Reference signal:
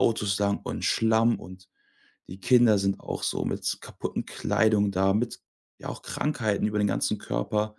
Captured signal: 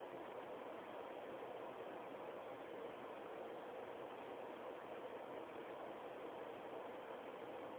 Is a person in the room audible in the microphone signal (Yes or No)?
No